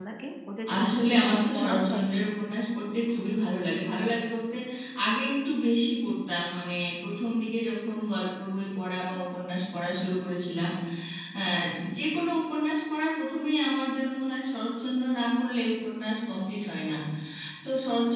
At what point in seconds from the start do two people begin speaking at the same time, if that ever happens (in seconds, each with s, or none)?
0.9 s